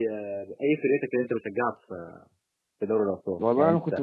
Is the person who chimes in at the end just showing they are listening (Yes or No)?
No